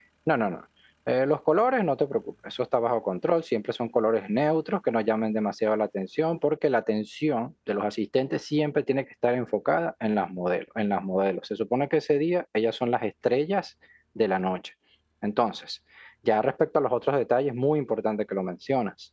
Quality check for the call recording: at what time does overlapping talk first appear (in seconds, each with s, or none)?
none